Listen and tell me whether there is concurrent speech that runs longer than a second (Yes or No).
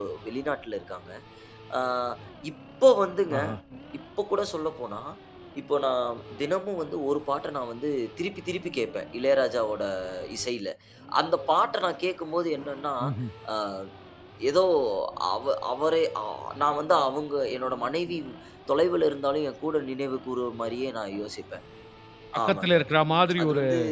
No